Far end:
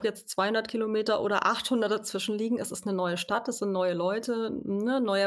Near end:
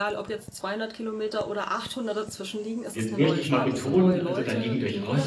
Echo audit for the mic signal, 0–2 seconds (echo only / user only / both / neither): echo only